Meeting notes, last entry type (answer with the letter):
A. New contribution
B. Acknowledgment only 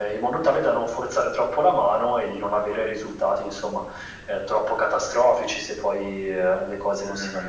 A